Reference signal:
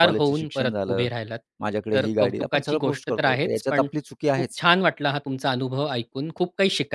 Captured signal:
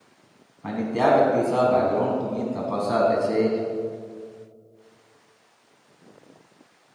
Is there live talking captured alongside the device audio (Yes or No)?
Yes